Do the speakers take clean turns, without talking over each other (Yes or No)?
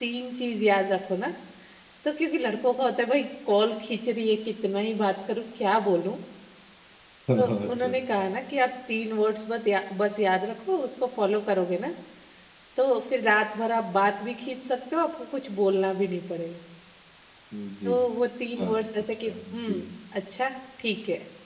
No